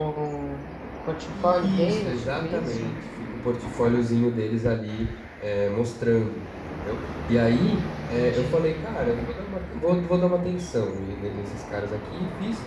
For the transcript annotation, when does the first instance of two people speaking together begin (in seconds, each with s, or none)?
1.3 s